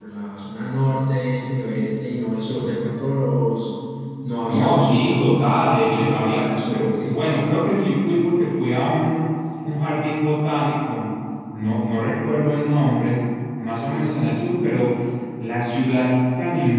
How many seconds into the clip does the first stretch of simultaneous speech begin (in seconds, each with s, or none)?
4.4 s